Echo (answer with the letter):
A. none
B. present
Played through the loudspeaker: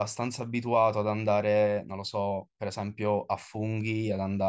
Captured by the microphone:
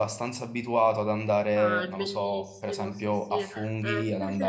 B